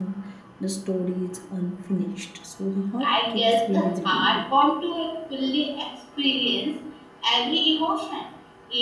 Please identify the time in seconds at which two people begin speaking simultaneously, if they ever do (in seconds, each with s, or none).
3.0 s